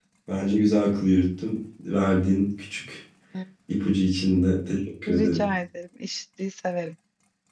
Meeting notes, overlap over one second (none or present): none